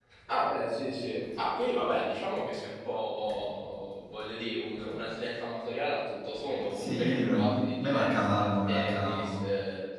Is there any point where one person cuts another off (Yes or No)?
Yes